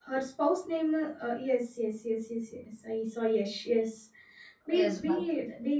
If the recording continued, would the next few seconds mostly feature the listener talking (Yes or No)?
No